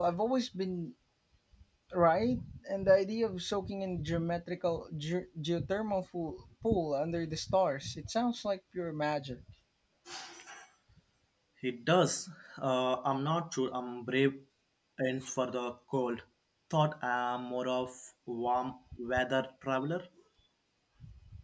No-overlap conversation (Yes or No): Yes